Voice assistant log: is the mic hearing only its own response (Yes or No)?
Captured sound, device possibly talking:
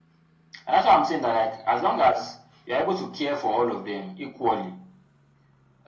Yes